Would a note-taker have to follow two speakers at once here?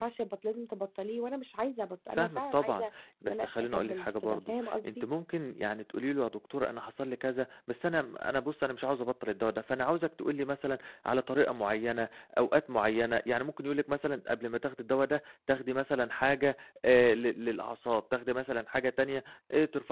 Yes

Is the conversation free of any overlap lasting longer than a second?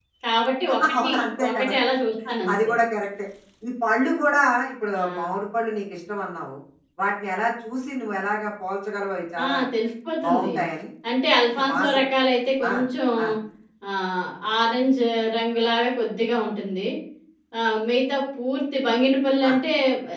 Yes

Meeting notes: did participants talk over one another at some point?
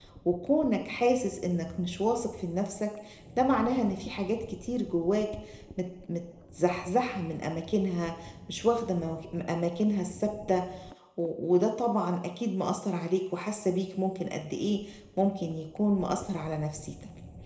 No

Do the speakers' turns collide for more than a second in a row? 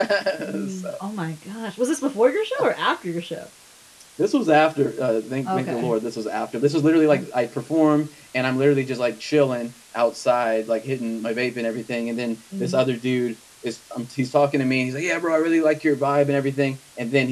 No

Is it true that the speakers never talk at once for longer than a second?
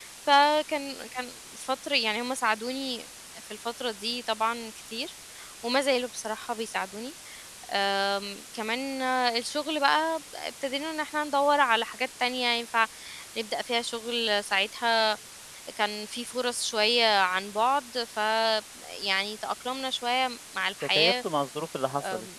Yes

